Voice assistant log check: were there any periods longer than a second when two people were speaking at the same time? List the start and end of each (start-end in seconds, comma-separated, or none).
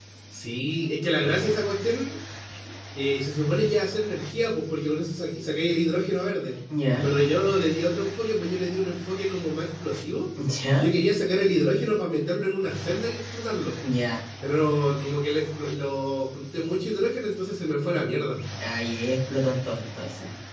none